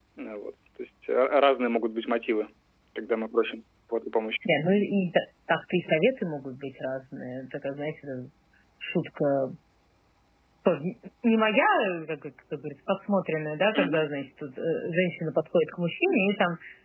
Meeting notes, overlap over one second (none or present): none